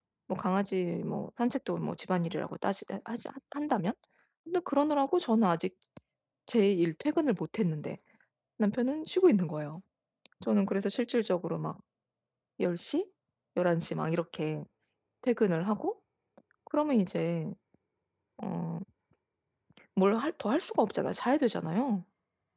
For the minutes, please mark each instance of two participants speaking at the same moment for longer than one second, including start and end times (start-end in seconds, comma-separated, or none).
none